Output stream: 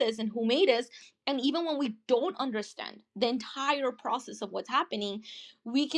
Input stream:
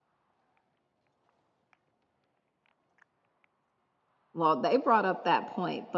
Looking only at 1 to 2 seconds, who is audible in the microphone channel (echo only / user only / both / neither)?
neither